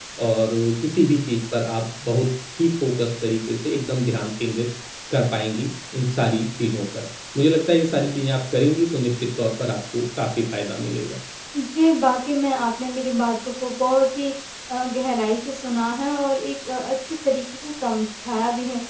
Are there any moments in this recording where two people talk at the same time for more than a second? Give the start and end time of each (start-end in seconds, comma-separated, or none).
none